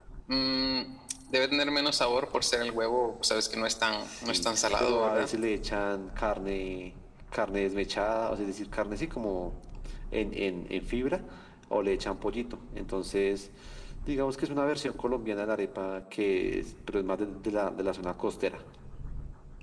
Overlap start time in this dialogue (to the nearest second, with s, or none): 4 s